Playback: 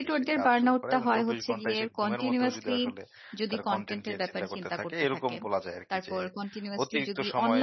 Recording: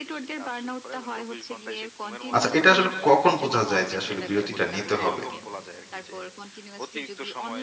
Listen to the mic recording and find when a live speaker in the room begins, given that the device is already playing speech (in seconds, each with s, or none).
2.4 s